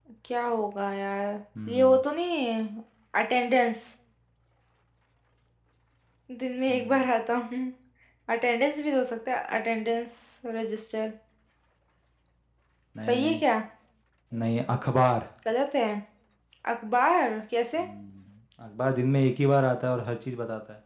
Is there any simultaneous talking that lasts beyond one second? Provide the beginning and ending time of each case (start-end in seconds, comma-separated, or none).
none